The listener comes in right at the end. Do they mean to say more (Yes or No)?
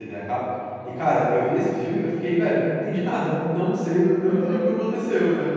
No